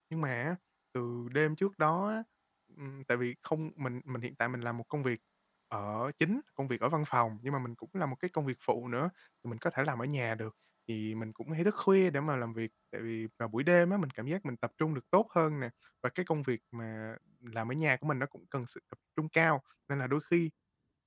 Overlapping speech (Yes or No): No